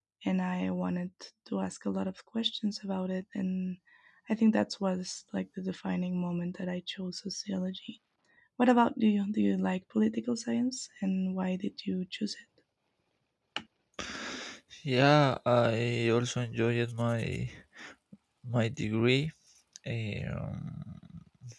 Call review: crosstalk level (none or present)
none